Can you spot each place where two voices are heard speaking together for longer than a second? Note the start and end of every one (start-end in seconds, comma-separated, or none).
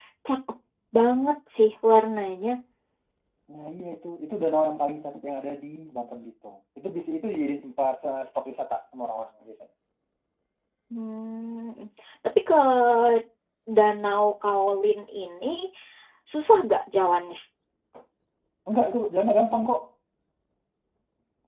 none